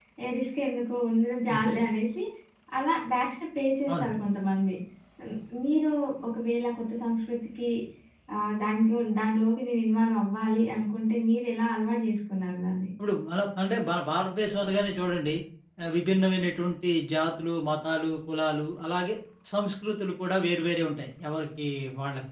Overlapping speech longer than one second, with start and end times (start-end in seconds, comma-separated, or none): none